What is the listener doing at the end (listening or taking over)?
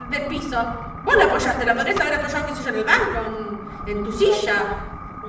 taking over